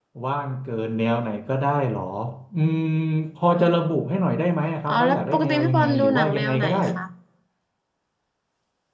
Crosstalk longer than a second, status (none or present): present